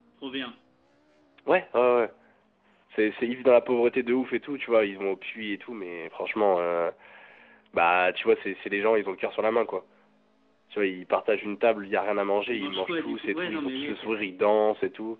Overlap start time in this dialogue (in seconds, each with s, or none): 12.5 s